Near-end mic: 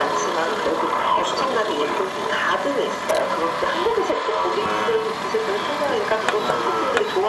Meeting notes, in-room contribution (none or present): none